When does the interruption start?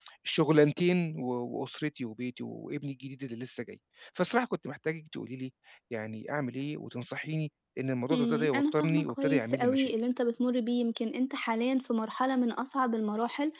8.1 s

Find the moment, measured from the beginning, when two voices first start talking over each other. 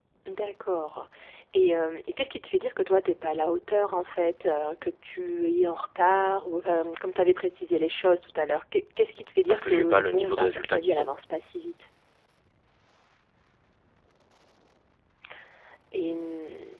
9.5 s

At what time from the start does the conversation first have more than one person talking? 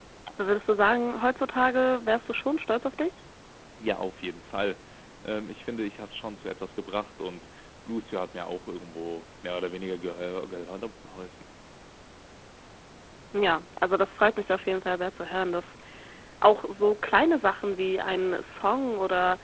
none

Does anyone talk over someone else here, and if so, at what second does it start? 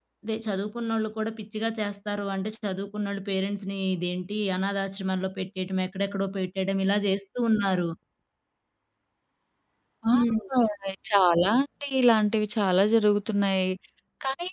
none

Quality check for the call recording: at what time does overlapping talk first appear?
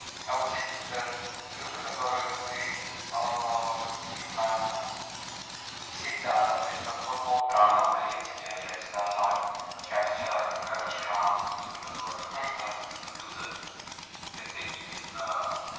7.5 s

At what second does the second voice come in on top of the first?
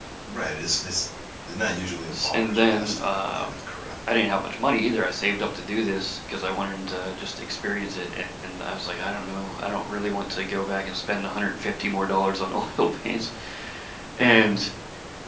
2.1 s

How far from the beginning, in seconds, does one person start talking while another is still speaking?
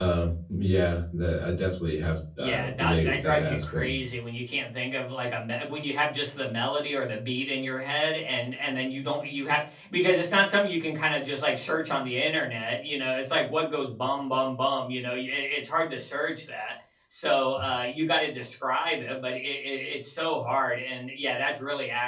2.4 s

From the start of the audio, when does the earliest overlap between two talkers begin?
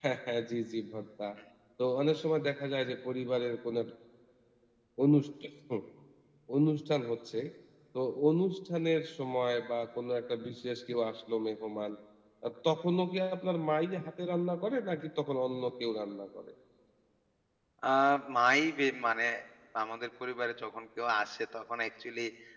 none

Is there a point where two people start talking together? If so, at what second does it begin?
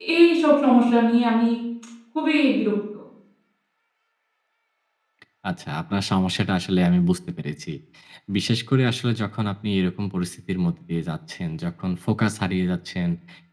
none

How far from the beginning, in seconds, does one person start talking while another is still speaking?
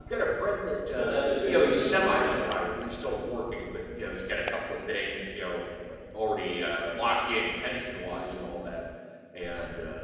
0.9 s

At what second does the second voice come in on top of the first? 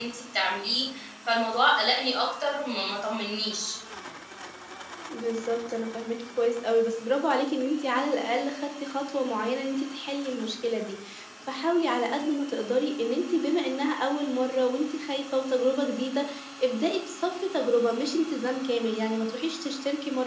none

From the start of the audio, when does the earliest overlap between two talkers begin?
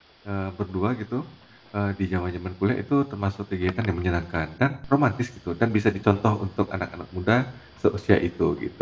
none

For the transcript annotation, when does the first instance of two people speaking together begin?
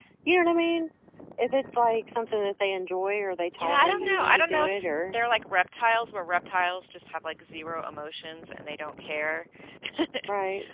3.5 s

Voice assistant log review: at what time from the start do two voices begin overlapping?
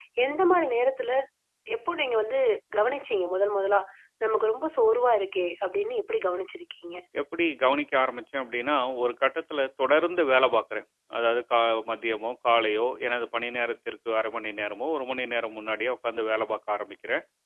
none

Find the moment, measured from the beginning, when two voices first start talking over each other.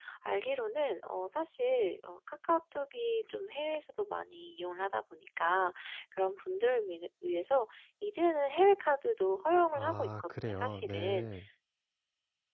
9.7 s

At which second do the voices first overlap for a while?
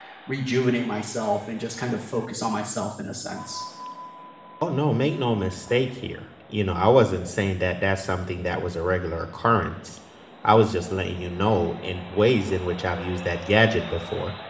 none

